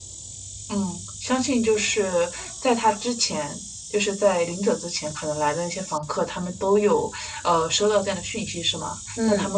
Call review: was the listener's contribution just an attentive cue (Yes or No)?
Yes